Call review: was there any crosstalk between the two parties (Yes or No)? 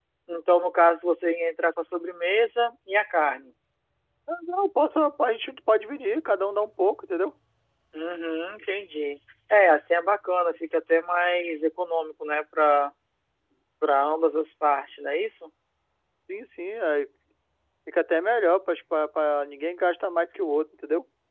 No